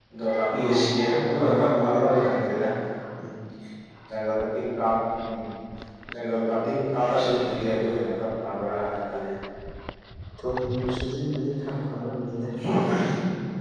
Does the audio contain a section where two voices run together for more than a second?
Yes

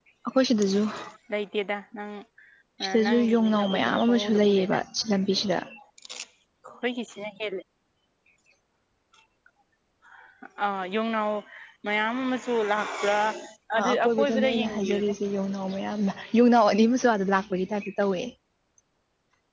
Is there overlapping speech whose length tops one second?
Yes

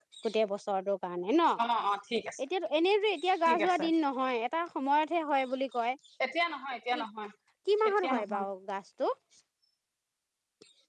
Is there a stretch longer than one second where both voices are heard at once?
No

